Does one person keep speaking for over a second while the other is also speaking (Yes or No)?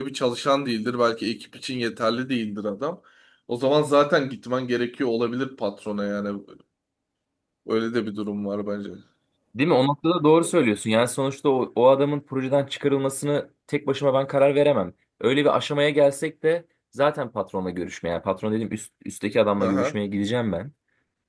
No